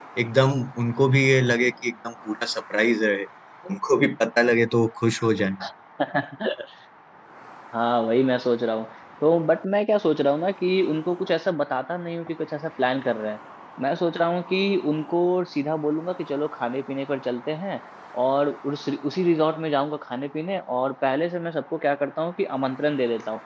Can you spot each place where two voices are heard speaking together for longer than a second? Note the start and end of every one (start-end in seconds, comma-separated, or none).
none